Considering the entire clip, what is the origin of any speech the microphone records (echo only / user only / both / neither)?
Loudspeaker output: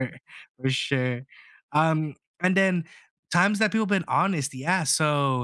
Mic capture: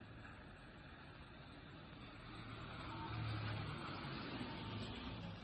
neither